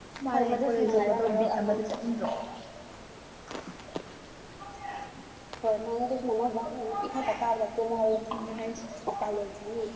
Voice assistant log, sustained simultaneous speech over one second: present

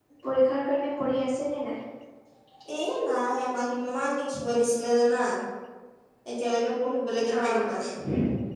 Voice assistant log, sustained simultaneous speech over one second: none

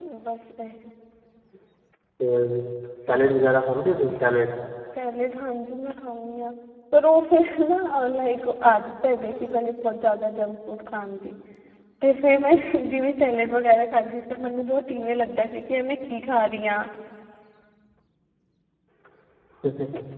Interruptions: none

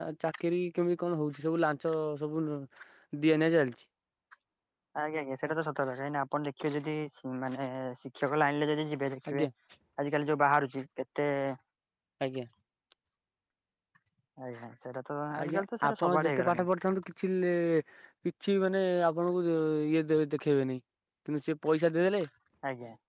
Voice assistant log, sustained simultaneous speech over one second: present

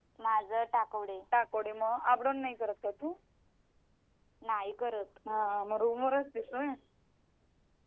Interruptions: none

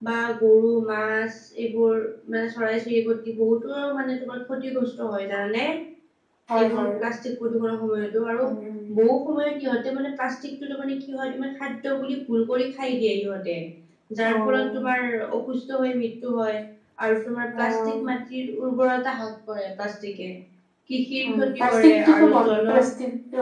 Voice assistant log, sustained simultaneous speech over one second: present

